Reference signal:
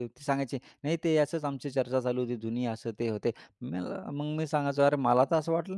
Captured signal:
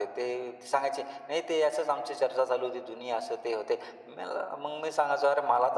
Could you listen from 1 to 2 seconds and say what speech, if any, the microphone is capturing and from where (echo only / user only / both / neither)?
echo only